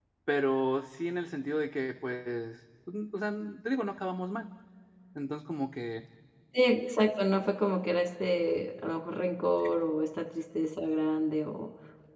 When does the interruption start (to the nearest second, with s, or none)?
none